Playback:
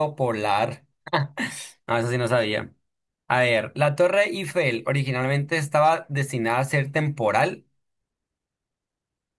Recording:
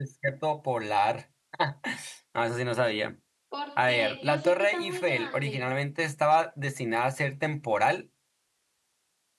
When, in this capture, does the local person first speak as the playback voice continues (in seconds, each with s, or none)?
3.5 s